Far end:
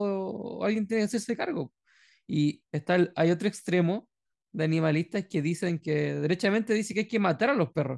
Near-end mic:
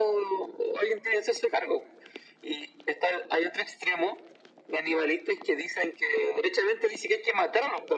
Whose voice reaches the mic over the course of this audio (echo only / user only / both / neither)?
echo only